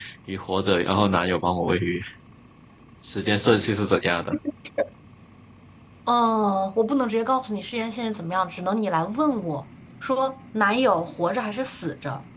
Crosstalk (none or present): none